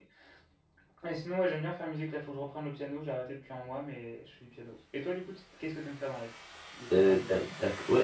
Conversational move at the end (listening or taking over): taking over